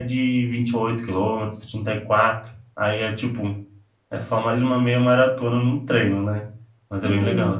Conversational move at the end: taking over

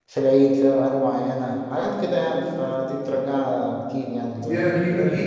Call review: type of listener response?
taking over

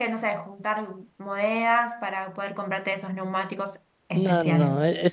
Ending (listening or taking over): taking over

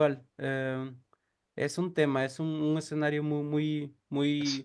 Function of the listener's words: listening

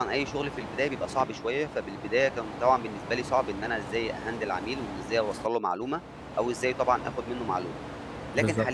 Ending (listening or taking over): listening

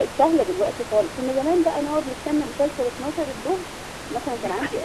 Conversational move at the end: taking over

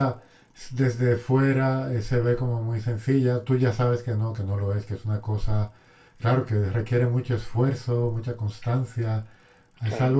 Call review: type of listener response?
listening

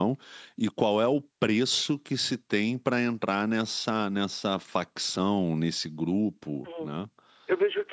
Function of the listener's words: taking over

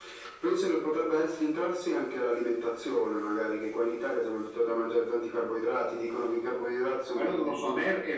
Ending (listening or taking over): taking over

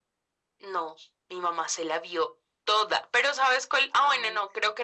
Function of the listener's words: listening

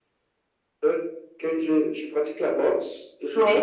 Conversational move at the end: listening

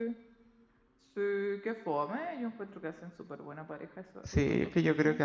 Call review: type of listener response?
taking over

